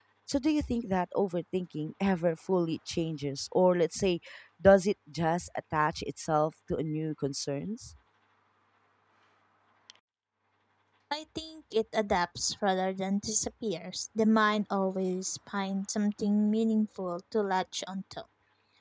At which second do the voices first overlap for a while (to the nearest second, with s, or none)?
none